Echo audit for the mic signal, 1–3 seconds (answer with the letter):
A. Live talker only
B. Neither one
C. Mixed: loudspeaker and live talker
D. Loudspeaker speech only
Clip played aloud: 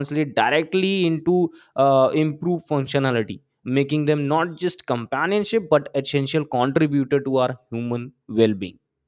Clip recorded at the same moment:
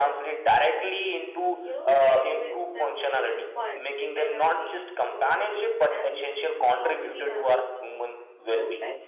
C